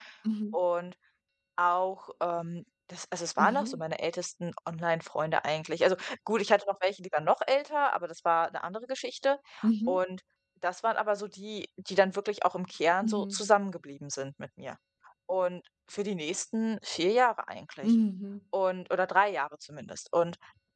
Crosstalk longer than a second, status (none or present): none